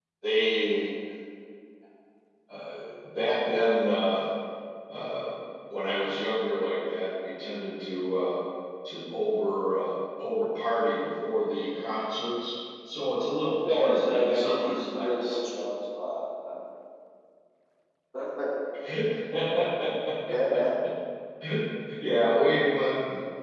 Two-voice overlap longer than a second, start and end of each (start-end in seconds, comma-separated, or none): 13.7-15.4